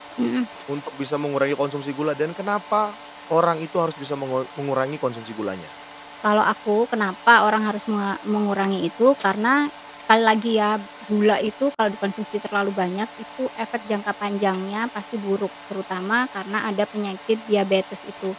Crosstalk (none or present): none